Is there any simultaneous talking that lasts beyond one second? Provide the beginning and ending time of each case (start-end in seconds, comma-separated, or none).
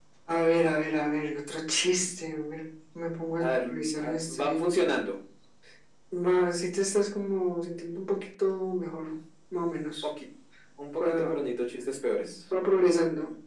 3.4-4.6